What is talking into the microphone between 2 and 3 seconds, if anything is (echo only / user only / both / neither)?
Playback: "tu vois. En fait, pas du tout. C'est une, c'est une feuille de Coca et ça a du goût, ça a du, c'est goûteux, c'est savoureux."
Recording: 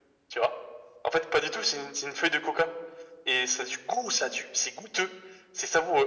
echo only